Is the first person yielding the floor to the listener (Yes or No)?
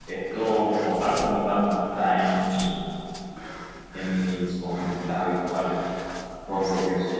No